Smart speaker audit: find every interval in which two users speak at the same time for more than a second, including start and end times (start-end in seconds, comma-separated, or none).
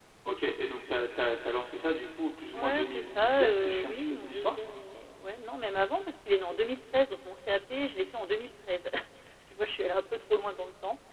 2.6-4.6